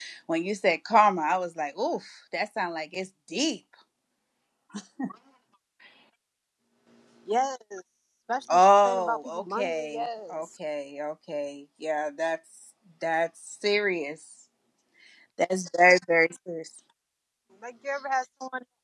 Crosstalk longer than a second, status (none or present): present